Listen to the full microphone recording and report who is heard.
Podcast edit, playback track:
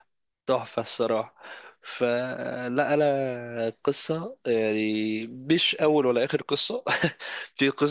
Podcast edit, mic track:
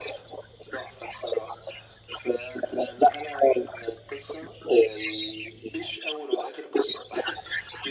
echo only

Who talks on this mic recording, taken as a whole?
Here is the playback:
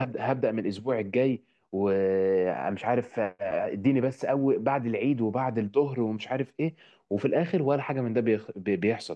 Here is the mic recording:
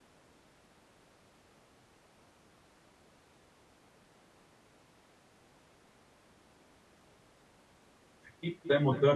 user only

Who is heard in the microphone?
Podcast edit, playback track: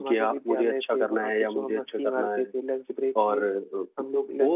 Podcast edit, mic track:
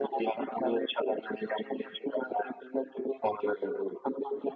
echo only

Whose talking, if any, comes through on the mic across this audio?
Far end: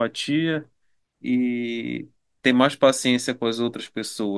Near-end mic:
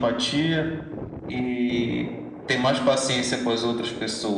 echo only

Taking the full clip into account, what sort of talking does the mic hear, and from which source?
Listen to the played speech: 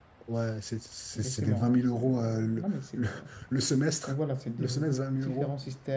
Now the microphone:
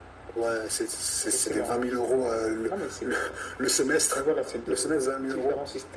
echo only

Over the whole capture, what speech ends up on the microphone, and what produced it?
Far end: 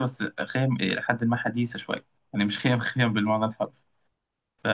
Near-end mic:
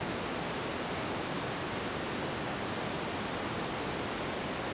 neither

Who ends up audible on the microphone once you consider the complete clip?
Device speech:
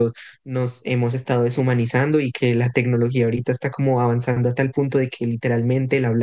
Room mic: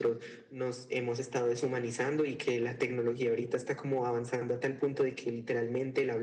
echo only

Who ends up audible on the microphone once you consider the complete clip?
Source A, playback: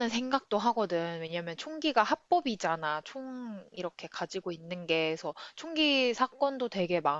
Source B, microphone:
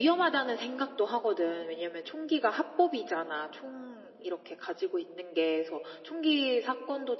echo only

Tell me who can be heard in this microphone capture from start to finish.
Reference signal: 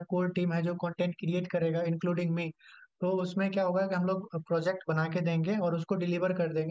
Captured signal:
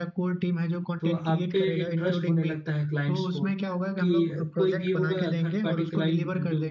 both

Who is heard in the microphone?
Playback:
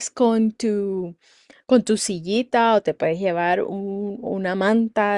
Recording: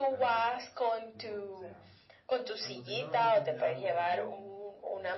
both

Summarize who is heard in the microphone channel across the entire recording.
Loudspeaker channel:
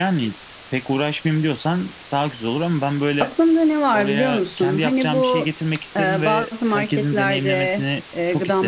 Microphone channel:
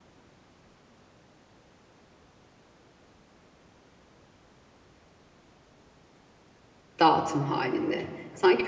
user only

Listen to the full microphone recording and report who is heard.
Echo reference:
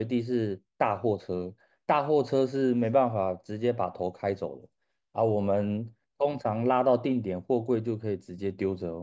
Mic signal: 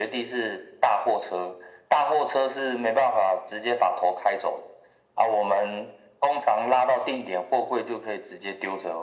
echo only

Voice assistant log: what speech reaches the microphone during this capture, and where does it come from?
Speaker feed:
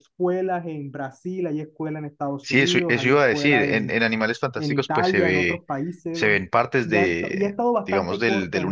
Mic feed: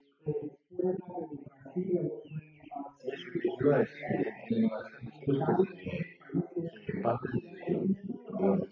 echo only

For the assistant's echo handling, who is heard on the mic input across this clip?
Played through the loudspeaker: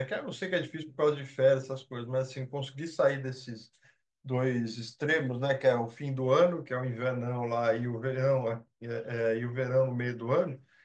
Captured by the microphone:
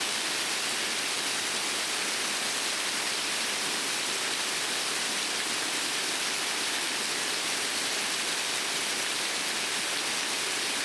neither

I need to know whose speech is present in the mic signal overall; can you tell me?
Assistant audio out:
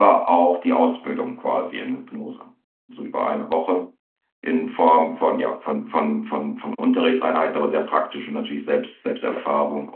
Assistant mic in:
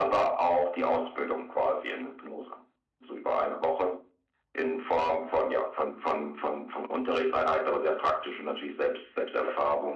echo only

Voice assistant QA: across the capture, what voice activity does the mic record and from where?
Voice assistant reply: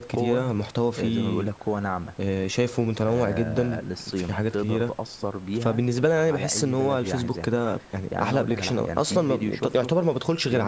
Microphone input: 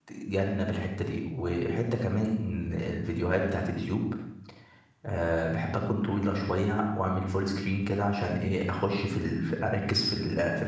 user only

